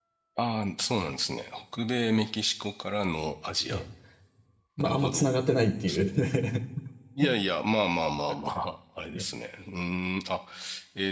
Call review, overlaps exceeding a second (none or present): none